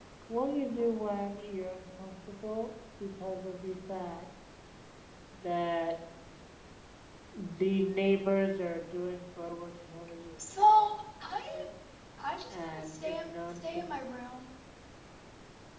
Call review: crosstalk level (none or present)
present